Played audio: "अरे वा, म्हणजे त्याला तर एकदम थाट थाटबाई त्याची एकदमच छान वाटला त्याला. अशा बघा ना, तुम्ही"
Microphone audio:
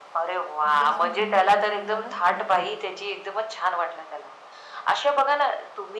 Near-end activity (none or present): present